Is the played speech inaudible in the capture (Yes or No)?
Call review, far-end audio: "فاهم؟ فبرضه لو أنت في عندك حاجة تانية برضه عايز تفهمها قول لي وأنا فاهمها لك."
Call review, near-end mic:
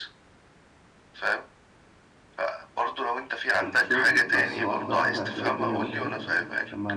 No